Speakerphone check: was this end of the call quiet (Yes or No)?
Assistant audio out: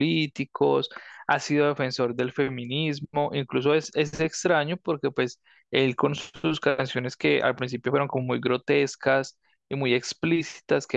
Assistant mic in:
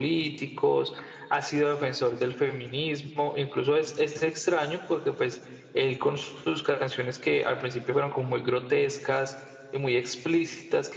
Yes